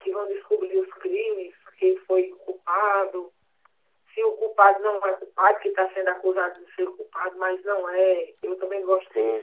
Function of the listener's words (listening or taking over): taking over